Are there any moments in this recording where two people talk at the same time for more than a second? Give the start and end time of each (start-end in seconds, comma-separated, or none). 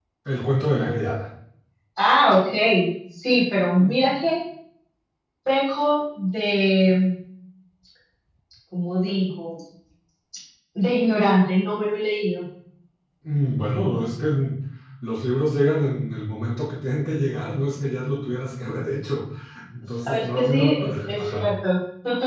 20.1-21.5